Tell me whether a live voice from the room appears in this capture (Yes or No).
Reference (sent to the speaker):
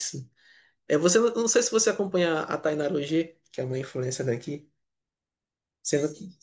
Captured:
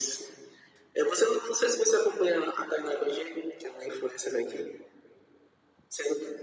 No